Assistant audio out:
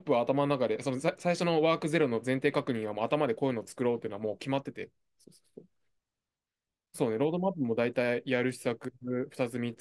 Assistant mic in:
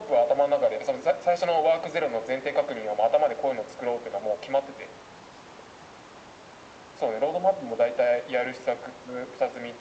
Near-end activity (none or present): none